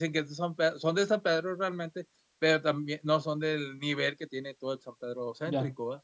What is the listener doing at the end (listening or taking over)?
taking over